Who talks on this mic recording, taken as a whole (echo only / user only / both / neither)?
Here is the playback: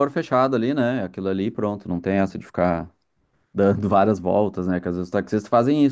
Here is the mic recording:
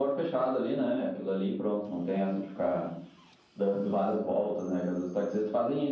echo only